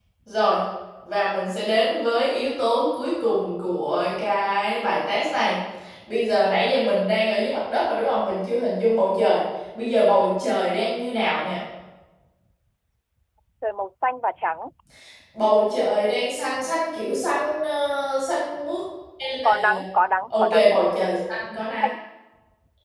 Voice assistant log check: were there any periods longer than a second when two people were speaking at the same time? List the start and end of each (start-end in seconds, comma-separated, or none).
none